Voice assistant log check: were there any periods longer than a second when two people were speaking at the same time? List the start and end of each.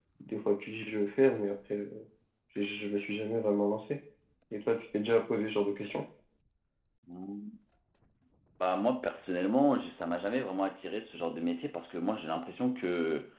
none

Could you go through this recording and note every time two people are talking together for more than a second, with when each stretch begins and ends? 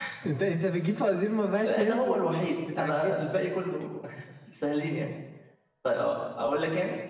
1.6-3.4

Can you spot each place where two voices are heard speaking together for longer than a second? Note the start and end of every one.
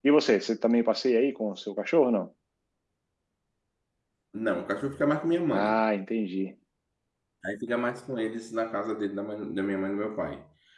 none

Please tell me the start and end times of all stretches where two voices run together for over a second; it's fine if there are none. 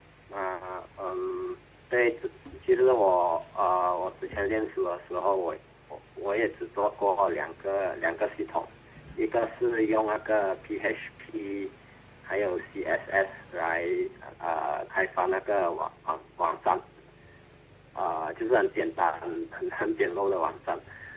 none

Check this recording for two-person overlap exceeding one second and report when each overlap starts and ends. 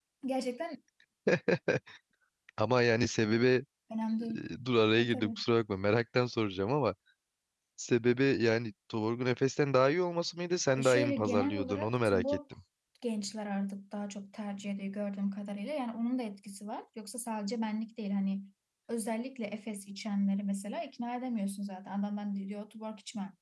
10.8-12.4

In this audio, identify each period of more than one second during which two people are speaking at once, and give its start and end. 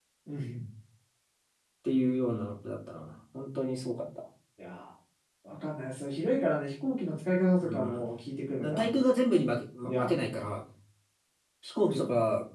none

